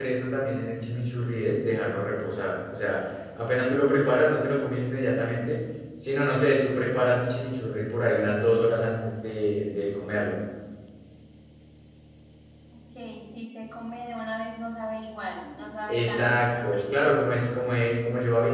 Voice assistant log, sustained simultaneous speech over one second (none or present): present